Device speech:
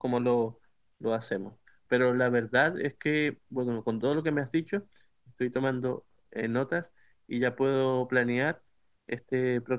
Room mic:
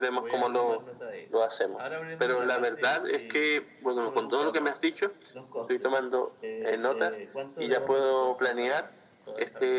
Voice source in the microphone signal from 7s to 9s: both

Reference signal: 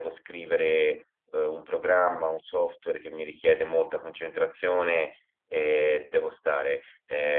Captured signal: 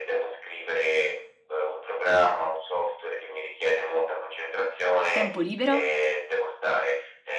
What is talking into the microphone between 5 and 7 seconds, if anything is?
both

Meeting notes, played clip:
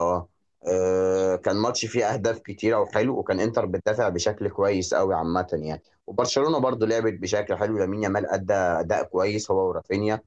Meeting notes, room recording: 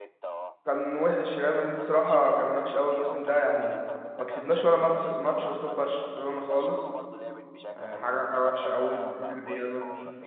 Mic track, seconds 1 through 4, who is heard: both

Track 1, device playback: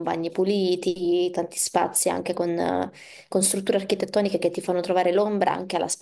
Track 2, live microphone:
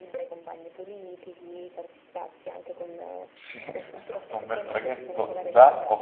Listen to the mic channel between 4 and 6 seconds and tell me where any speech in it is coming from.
both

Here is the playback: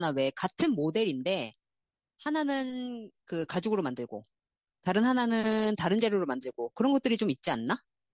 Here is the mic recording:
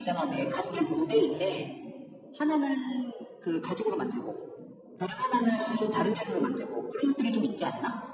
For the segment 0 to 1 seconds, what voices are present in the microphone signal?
echo only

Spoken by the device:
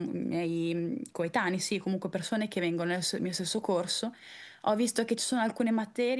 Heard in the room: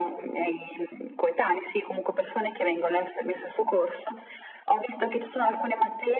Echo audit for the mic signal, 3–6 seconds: echo only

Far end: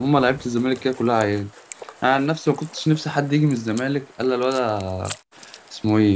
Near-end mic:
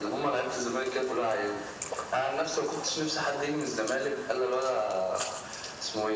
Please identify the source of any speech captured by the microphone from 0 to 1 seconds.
echo only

